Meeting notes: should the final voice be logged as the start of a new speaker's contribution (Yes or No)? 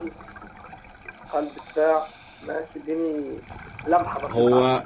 Yes